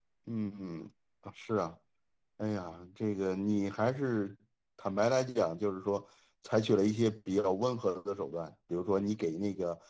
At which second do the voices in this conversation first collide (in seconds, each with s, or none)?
none